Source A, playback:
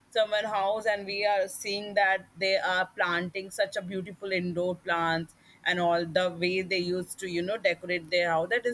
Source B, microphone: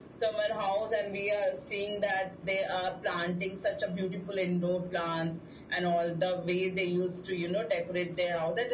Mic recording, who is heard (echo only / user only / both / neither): echo only